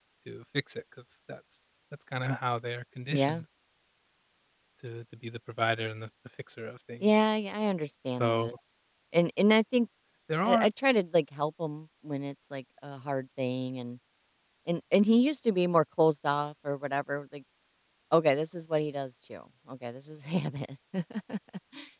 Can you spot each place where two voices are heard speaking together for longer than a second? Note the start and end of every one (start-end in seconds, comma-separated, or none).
none